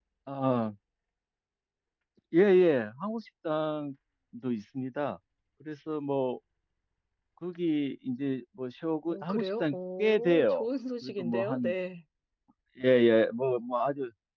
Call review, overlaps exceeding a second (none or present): present